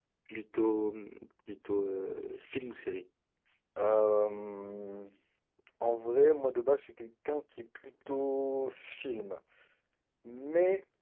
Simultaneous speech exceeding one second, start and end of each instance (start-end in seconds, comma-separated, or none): none